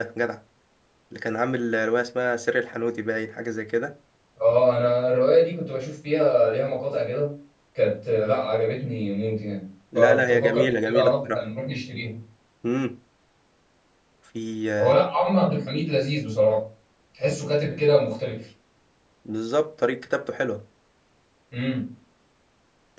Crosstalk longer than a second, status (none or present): present